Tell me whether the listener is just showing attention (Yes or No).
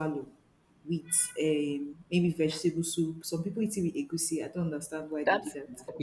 No